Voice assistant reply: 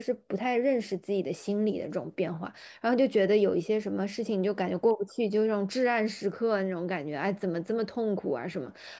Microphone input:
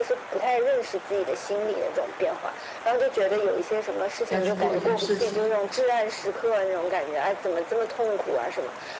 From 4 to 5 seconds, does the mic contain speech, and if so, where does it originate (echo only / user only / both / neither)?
both